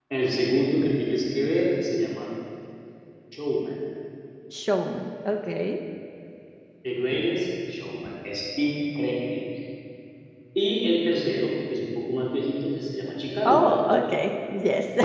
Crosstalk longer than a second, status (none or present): none